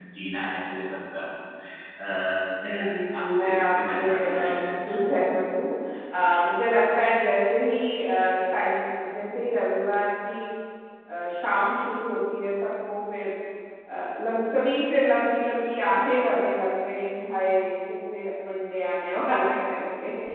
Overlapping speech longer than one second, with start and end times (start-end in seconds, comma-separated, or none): 3.2-5.2